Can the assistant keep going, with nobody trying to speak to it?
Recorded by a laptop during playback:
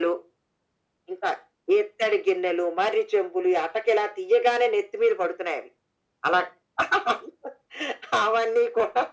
Yes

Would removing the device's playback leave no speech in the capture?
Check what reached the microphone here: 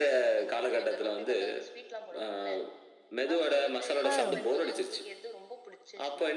No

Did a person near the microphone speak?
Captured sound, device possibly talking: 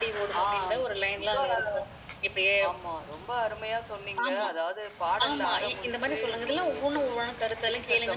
No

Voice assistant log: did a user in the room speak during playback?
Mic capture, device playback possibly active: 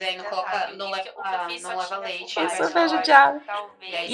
Yes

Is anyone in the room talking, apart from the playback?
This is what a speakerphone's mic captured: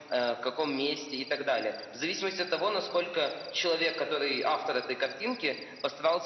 No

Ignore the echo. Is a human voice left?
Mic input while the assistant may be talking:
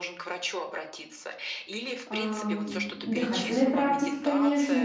Yes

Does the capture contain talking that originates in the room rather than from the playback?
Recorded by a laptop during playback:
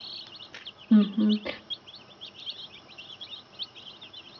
Yes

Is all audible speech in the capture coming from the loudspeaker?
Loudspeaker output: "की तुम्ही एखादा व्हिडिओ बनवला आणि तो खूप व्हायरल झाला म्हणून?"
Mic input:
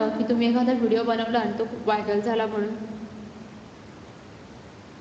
Yes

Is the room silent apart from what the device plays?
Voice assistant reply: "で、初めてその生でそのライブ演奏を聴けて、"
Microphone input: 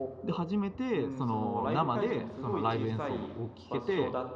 No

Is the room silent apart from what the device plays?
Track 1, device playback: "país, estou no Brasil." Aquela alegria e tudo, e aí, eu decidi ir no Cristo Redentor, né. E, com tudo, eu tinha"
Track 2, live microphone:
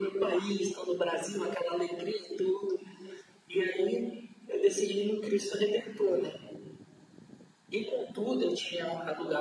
Yes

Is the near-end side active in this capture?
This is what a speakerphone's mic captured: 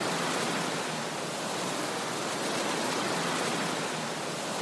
No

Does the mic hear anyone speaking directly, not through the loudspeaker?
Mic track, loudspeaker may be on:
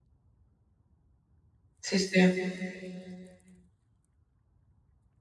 Yes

